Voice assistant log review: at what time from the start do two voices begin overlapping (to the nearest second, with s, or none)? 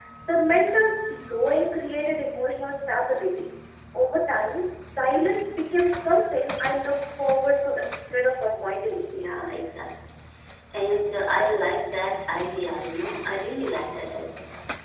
none